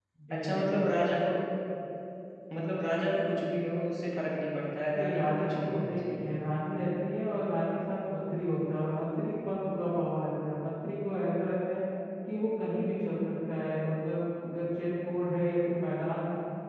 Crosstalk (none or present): present